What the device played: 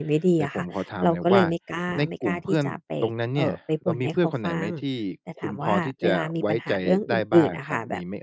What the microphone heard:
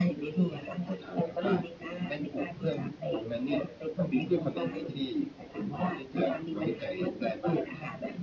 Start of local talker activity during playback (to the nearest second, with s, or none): none